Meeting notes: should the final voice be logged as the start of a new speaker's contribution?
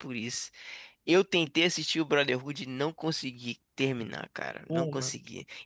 No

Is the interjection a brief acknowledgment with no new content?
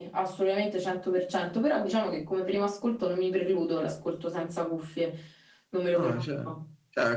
No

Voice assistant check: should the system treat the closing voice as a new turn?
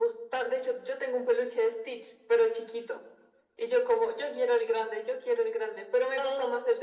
No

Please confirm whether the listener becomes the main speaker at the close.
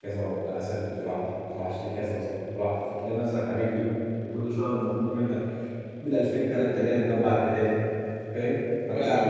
No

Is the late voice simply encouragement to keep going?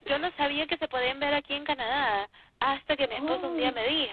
Yes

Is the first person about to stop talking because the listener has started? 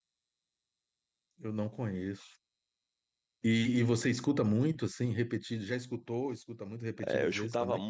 Yes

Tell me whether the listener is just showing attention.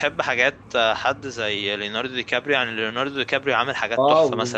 No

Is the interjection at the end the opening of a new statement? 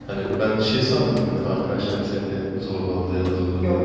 No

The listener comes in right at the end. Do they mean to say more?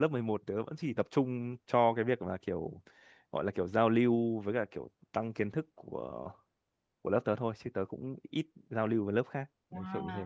Yes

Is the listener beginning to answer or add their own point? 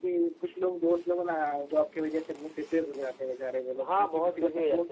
Yes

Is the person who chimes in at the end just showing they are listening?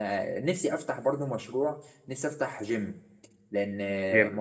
Yes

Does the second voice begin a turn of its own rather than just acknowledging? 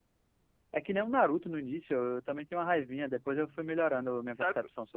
Yes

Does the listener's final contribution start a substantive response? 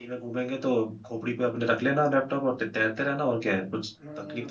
Yes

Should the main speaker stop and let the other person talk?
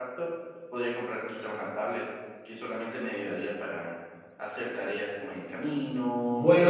Yes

